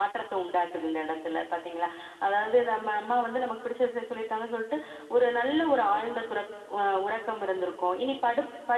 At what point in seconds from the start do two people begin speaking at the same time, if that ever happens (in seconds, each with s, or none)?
none